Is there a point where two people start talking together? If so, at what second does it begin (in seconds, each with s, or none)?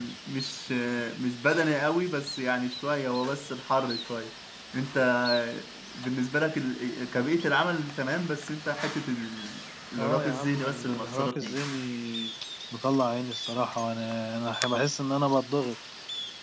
10.0 s